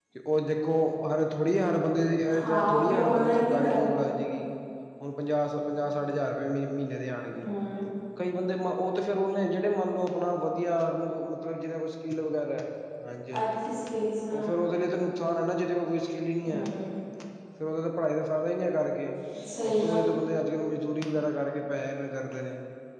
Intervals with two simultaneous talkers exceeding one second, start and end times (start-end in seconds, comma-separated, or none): 2.4-4.0